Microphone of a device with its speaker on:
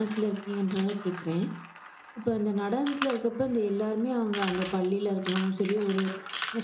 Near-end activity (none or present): present